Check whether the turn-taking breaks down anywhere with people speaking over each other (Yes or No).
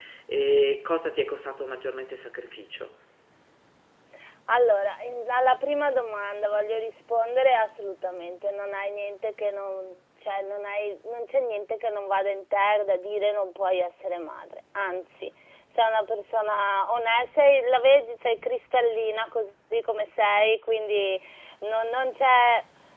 No